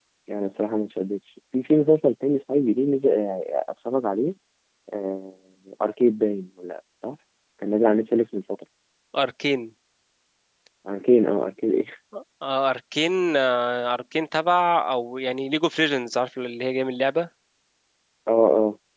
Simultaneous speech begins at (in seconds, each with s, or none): none